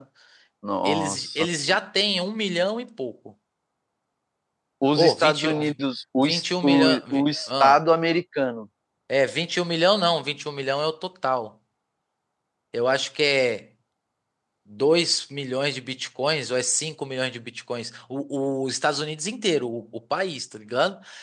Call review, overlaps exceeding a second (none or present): present